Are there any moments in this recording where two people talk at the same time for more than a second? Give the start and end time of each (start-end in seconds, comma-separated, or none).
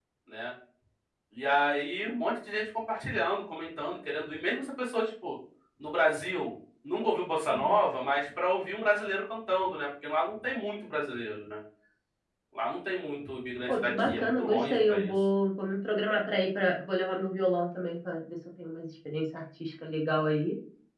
13.7-15.1